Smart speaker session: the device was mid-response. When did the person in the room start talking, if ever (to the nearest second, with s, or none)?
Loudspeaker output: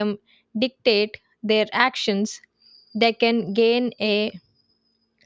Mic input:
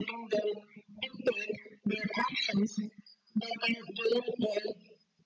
none